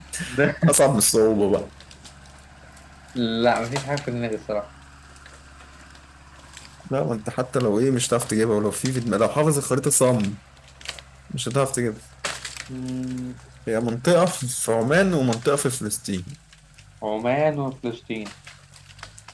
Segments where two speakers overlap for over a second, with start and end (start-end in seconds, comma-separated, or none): none